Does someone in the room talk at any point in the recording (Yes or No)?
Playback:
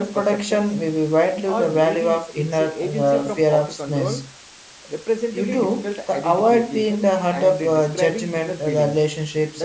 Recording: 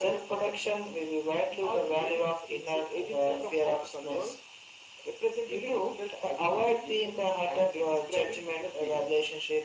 No